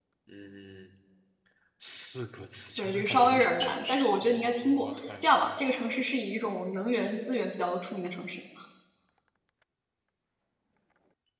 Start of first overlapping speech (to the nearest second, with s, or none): 3 s